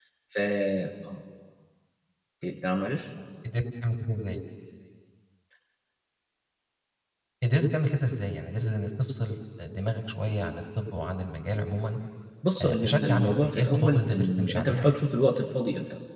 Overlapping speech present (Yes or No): Yes